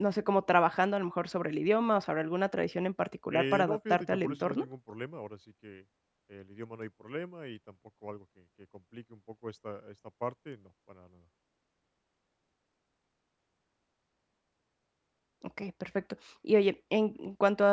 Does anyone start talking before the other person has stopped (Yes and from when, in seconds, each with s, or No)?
Yes, from 3.3 s